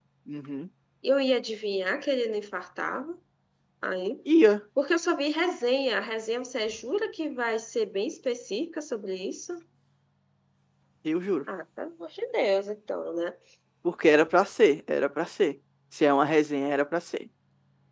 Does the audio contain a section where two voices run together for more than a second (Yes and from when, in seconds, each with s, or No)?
No